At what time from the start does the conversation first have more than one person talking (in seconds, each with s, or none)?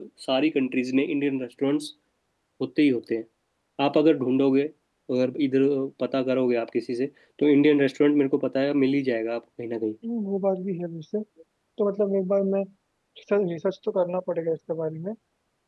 none